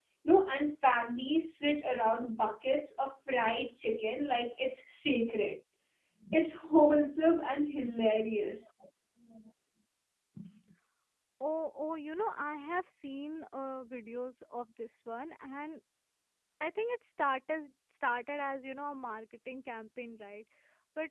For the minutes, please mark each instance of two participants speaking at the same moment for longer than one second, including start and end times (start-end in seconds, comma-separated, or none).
none